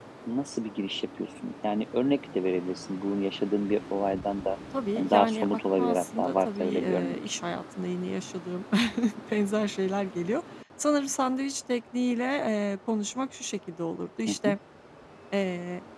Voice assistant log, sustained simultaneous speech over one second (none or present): present